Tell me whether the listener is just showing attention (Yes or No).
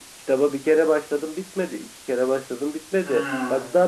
Yes